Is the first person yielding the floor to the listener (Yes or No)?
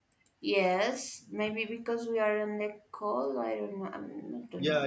Yes